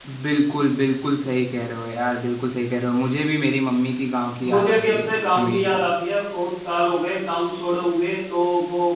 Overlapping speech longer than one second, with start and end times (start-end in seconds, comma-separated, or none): 4.4-5.8